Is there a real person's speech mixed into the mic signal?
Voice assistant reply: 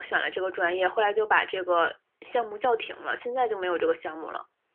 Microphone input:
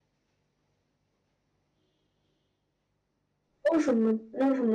Yes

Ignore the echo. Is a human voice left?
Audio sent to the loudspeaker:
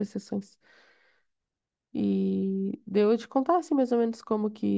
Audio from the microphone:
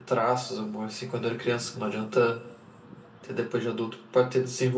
Yes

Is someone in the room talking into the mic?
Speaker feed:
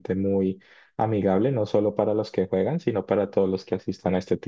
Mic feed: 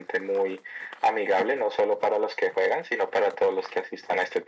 No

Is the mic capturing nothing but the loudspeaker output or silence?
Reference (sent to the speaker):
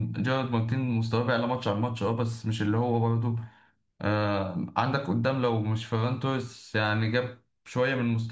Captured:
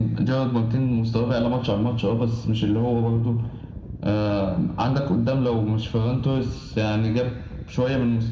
Yes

